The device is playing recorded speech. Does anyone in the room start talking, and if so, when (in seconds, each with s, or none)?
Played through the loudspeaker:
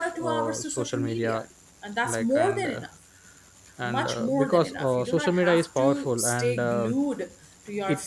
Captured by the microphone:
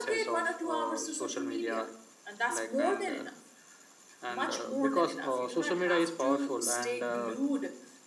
none